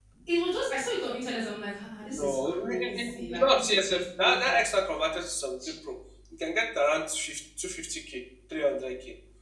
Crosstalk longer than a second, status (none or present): present